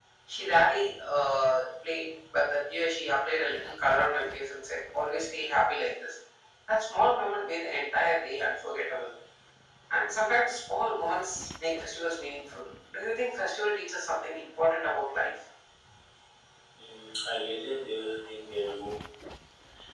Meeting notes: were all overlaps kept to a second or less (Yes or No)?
Yes